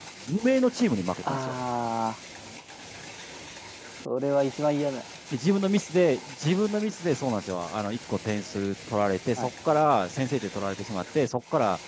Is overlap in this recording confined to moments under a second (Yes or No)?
Yes